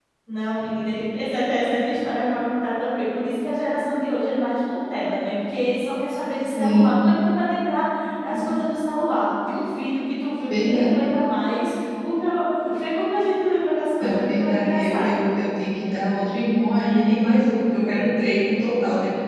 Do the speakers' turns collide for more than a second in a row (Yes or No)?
Yes